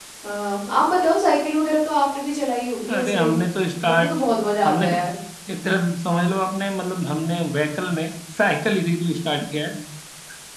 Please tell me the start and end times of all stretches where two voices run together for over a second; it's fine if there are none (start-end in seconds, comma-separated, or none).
none